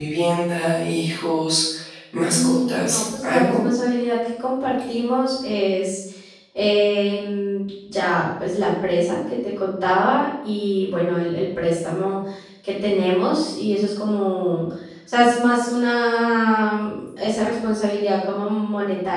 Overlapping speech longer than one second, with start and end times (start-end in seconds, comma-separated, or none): 2.3-3.6